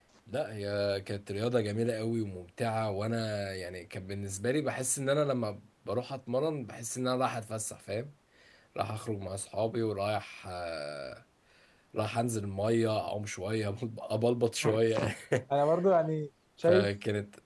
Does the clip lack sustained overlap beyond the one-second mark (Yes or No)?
Yes